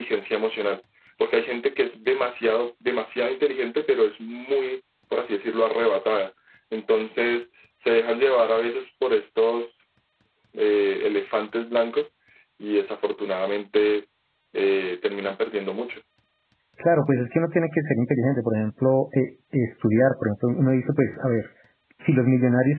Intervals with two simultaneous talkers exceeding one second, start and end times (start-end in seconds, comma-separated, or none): none